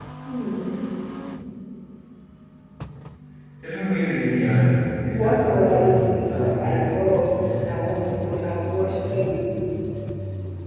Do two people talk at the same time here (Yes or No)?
Yes